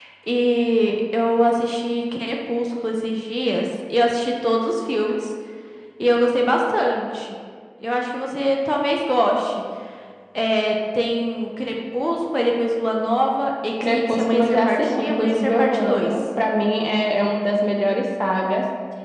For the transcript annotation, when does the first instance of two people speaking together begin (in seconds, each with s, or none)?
13.8 s